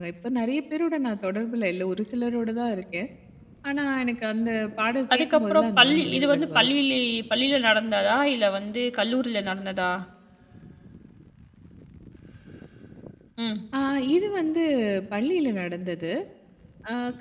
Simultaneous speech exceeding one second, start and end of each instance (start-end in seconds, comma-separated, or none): 5.1-6.7